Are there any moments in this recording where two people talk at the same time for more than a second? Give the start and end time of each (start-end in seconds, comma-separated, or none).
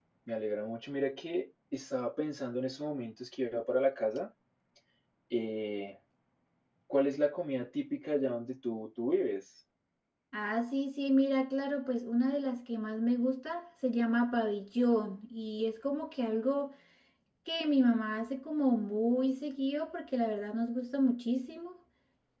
none